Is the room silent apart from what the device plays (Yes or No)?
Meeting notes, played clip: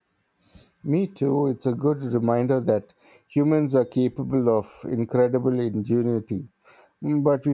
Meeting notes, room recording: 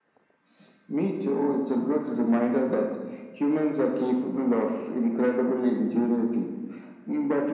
Yes